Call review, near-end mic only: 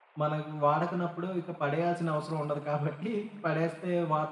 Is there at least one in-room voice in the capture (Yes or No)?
Yes